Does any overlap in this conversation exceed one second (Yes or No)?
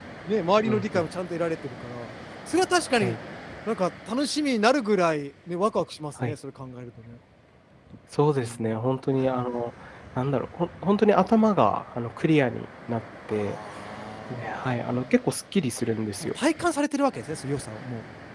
No